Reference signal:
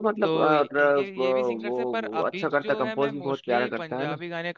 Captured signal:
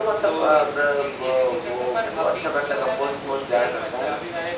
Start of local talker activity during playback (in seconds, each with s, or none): none